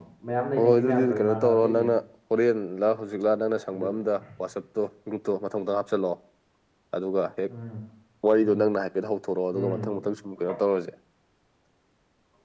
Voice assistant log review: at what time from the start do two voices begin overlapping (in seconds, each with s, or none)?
0.6 s